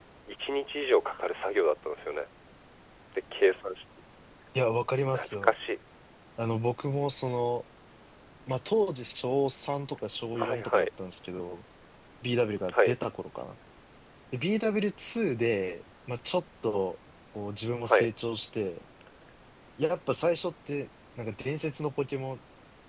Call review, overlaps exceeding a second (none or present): none